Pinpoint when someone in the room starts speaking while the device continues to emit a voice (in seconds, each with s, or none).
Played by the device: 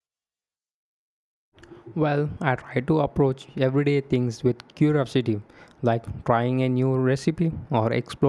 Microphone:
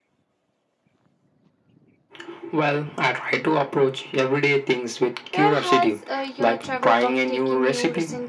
5.3 s